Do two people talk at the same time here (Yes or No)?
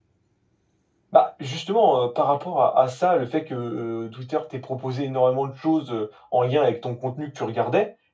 No